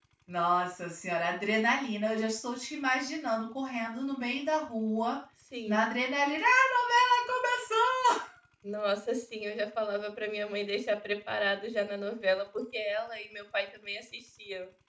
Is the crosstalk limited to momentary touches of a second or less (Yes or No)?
Yes